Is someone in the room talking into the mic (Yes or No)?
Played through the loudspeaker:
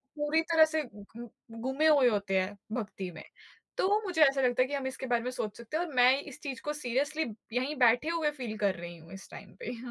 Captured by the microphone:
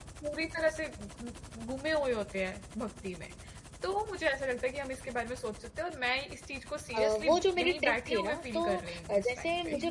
Yes